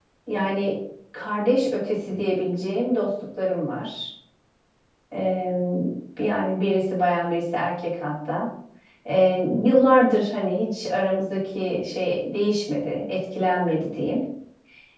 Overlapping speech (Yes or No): No